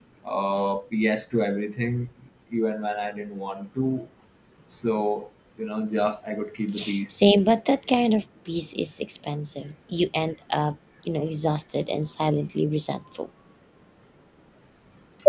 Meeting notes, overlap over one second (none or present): none